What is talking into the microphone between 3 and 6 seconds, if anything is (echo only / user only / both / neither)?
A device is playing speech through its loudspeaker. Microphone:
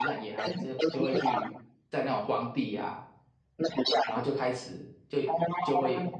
both